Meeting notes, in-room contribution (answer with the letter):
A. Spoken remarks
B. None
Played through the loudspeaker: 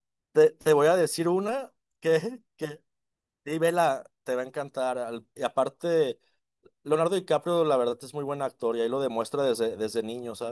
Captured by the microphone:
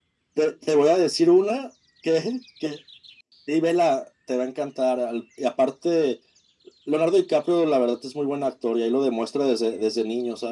B